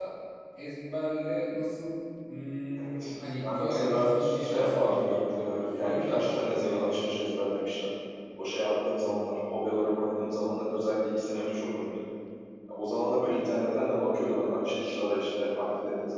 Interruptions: present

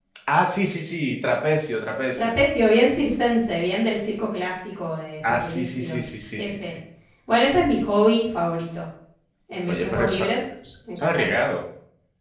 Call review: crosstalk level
present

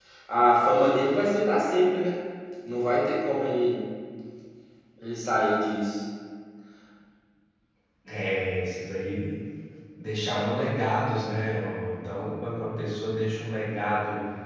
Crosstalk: none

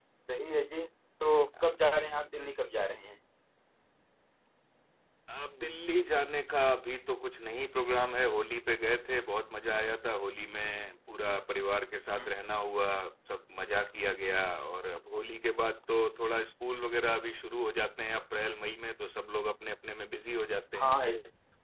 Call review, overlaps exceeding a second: none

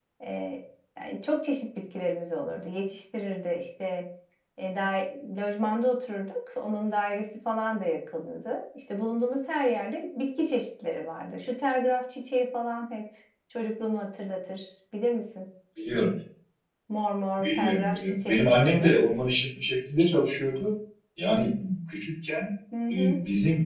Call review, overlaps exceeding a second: present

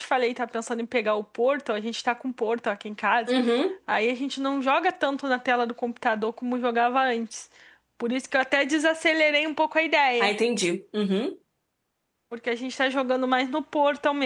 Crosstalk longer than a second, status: none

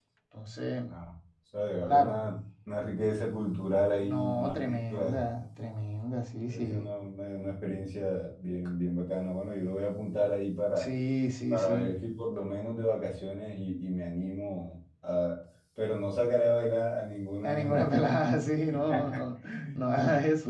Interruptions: present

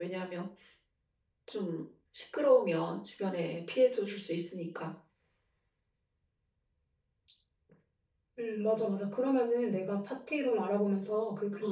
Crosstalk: none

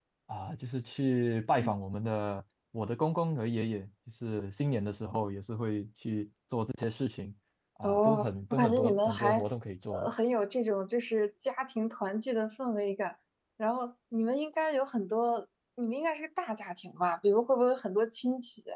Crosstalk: present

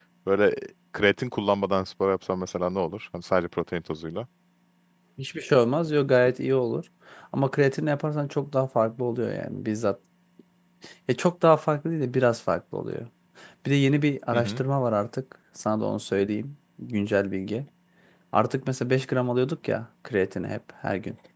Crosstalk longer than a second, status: none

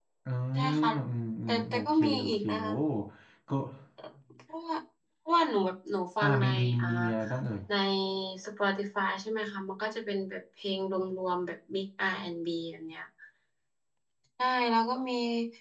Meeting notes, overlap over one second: present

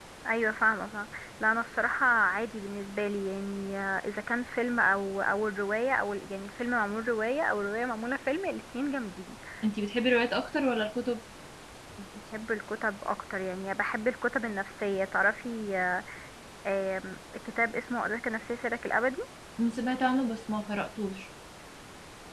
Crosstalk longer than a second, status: none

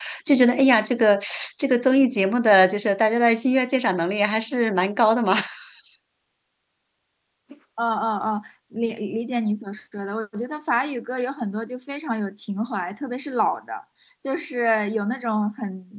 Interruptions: none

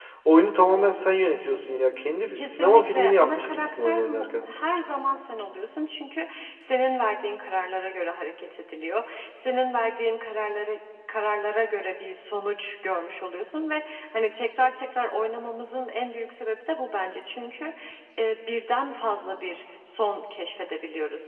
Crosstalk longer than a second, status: present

